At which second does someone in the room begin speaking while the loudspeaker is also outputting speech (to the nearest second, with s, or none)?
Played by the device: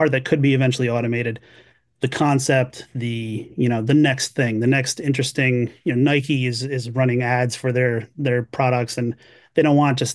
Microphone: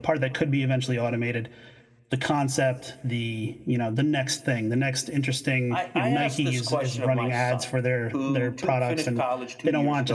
6 s